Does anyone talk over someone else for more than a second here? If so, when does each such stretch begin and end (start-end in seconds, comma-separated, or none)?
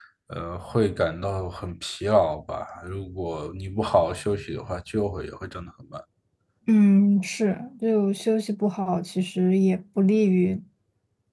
none